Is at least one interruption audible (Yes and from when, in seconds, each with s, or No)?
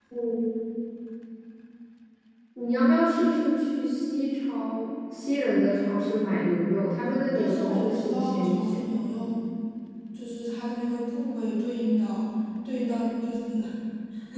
Yes, from 7.4 s